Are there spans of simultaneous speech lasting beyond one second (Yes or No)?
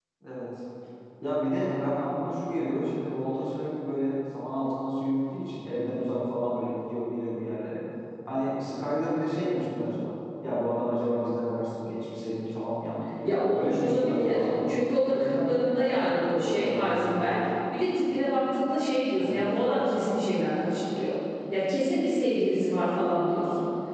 Yes